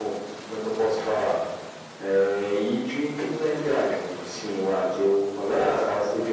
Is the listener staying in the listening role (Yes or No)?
Yes